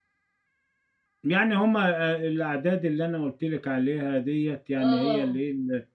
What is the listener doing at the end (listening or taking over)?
listening